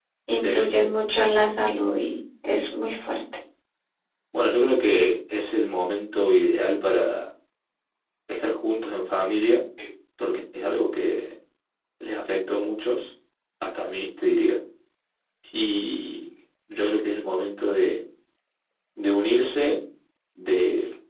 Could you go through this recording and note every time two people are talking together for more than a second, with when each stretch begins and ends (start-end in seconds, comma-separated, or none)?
none